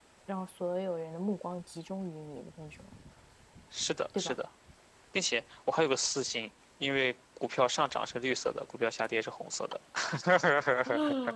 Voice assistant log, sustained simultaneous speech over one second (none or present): none